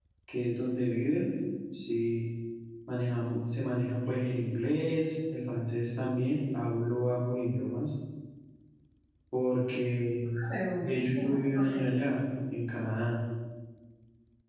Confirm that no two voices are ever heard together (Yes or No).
No